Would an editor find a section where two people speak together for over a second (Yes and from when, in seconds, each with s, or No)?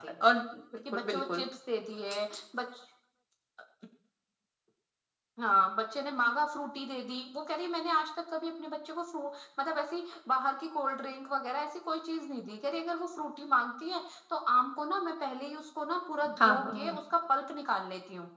No